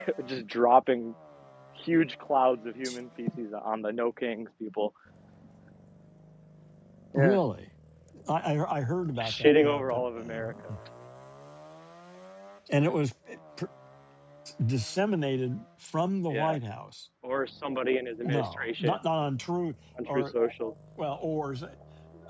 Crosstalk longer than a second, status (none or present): present